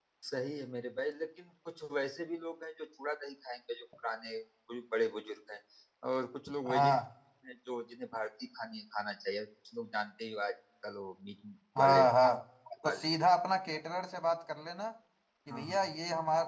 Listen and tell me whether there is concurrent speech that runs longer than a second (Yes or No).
No